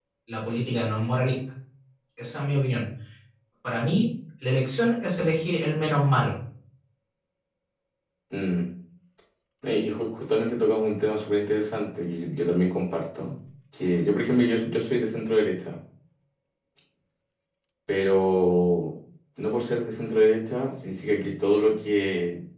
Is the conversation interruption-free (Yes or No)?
Yes